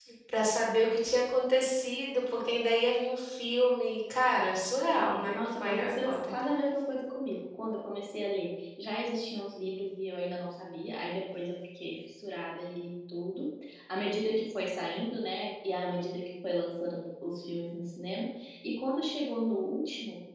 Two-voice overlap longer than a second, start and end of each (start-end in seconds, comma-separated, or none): 5.0-6.3